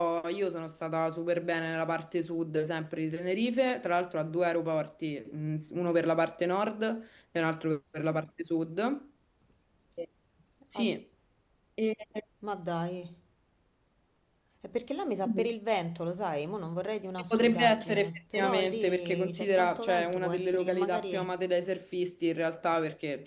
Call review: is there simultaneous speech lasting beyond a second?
Yes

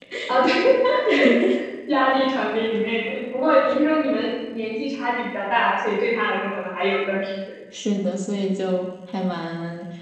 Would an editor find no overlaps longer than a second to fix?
Yes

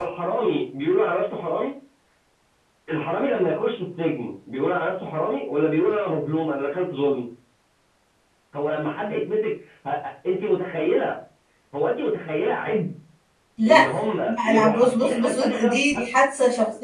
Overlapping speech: Yes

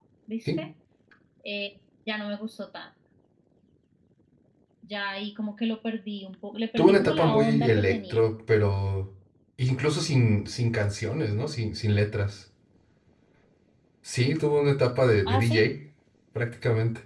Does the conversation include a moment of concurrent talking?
Yes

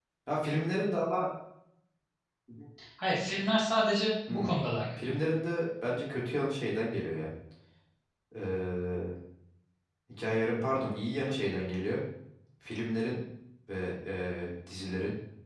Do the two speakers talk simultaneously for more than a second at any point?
No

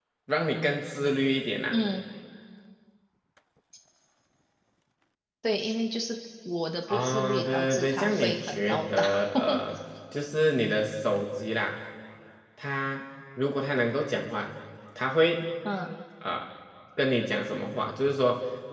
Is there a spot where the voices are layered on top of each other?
Yes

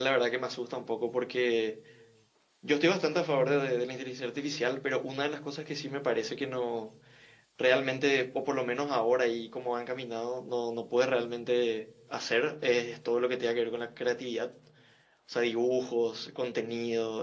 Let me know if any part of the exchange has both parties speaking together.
No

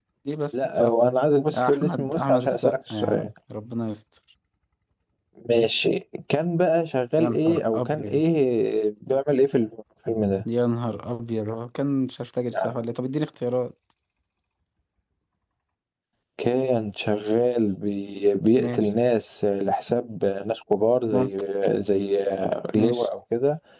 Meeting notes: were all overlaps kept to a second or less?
No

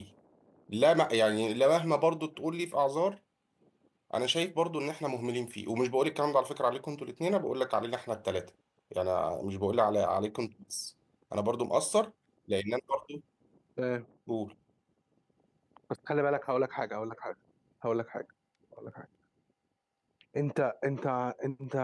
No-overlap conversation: Yes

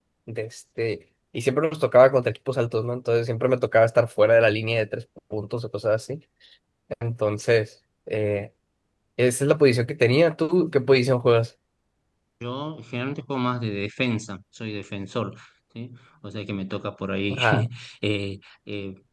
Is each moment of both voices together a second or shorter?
Yes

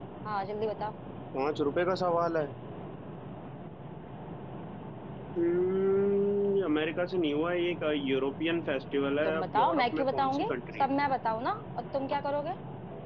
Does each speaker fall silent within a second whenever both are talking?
No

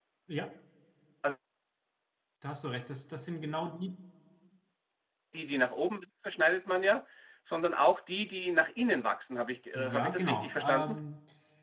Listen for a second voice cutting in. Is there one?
Yes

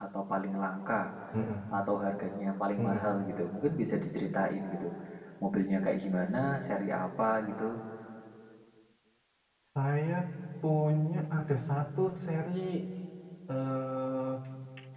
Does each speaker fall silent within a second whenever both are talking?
Yes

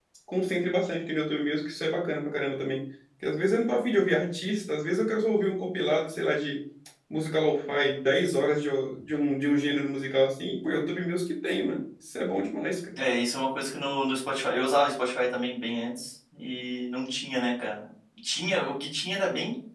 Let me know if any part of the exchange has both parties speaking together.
No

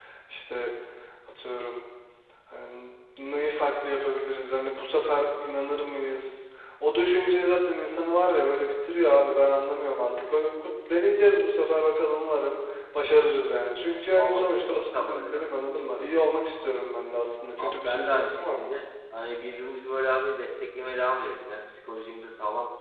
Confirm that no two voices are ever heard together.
No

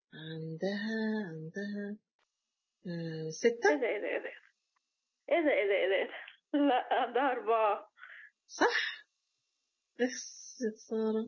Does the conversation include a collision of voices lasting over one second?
No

